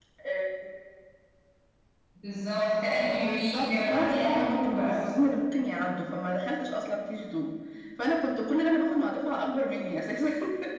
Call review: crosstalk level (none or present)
present